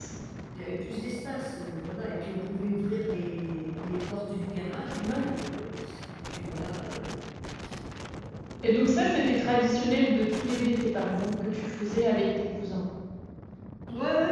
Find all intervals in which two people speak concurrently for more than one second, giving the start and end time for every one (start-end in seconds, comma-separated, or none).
none